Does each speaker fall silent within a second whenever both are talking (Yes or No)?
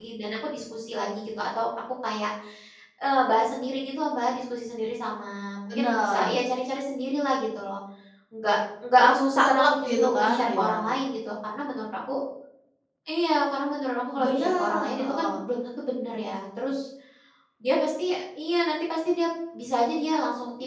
No